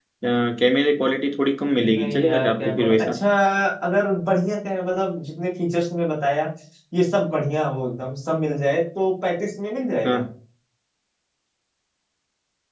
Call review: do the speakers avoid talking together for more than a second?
No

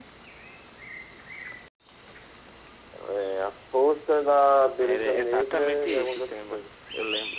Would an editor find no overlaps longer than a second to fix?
No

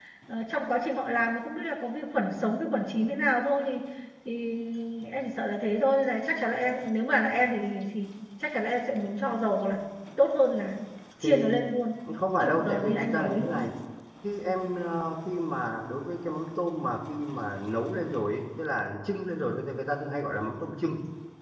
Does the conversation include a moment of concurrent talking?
Yes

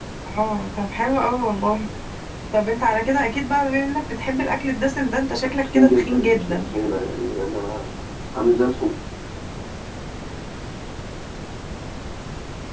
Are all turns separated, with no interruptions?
No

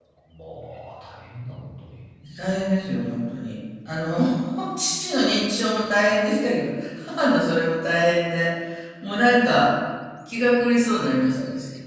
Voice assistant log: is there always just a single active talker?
Yes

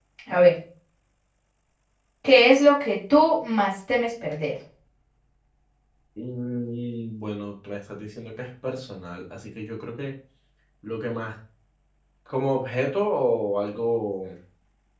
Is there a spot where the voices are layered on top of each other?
No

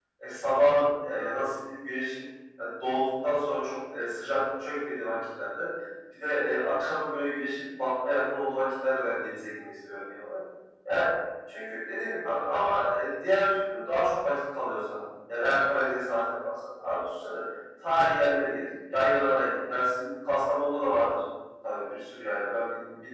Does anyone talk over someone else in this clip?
No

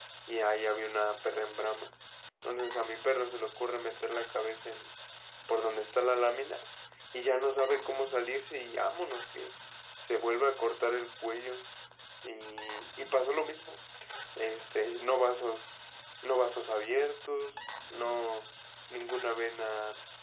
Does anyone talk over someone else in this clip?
No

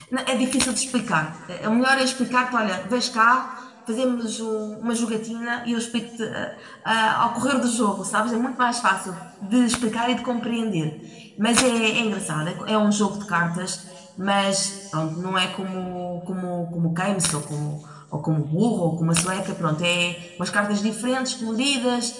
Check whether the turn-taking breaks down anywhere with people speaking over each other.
No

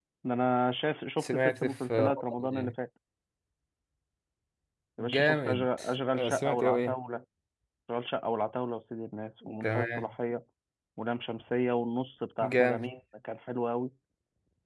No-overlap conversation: No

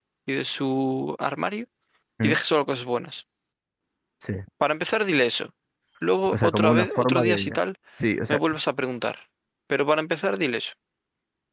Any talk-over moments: Yes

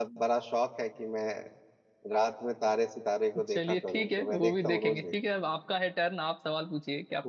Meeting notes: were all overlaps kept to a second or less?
No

